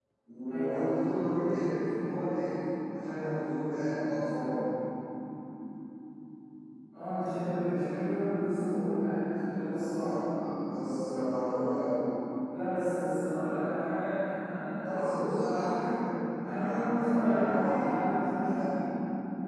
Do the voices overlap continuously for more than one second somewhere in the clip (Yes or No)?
Yes